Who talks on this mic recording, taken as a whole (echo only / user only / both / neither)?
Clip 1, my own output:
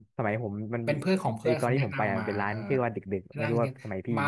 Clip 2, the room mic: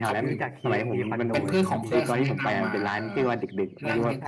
both